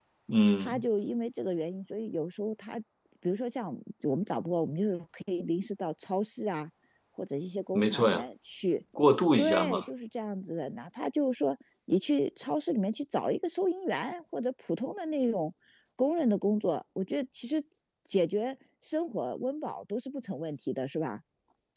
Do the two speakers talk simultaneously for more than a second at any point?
No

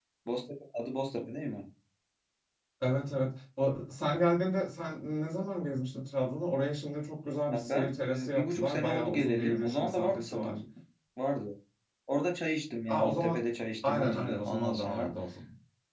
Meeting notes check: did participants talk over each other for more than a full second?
Yes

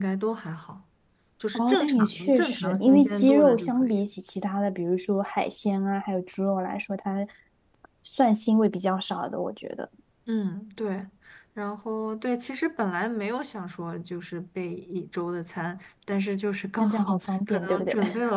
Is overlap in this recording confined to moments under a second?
No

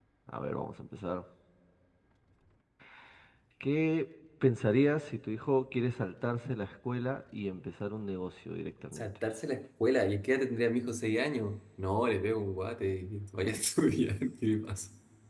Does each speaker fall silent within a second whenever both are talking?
Yes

